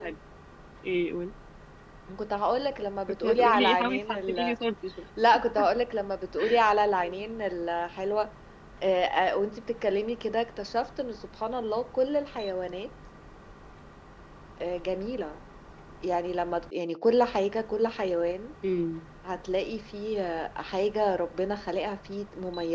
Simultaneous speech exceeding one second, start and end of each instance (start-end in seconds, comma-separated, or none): 3.2-4.5